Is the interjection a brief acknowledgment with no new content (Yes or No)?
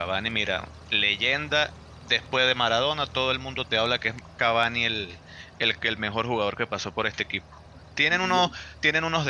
Yes